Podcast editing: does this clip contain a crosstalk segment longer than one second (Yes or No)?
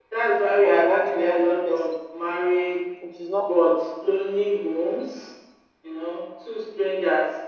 Yes